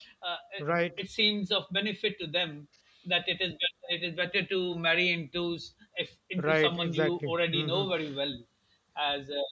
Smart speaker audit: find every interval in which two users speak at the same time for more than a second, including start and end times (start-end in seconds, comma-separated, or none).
6.4-7.8